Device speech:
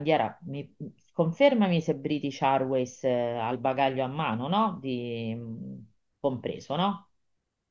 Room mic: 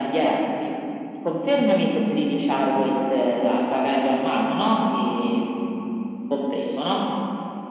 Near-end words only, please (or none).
none